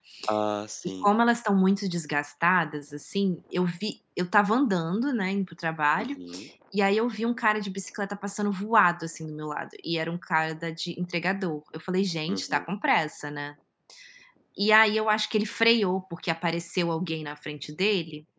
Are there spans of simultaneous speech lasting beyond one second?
No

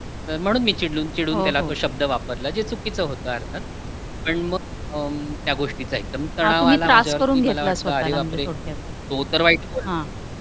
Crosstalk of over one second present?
Yes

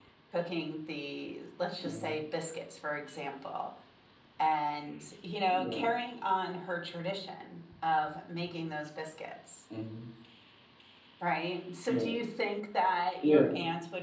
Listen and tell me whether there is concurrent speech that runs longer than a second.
No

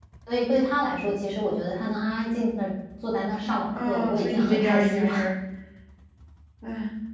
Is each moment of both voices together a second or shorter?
No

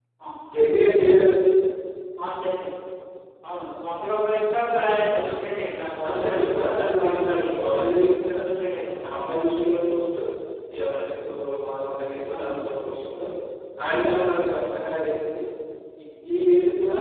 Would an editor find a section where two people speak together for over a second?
Yes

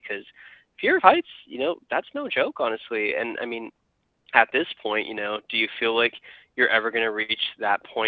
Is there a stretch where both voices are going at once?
No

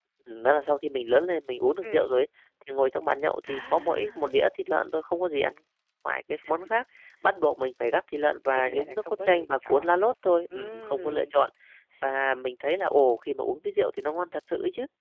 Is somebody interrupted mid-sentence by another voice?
Yes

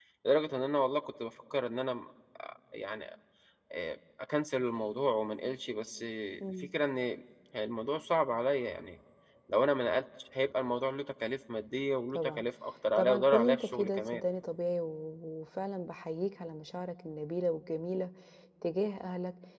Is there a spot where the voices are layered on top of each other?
Yes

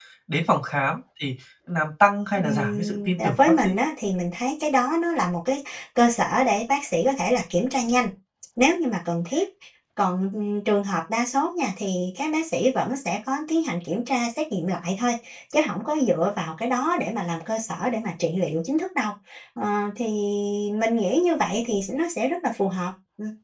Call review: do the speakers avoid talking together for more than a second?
No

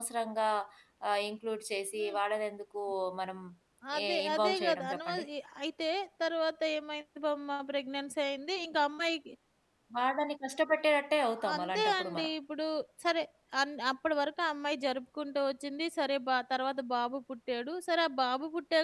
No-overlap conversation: No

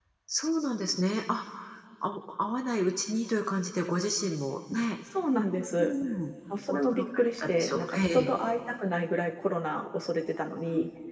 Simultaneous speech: Yes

